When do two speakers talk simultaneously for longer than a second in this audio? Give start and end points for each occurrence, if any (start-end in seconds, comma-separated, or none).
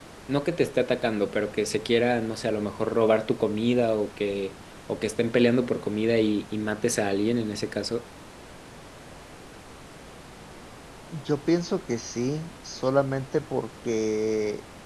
none